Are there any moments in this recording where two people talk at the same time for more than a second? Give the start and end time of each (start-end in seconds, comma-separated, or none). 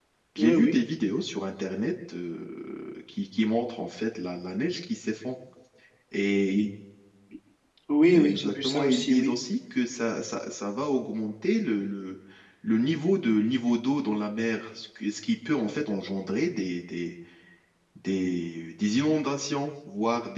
8.1-9.3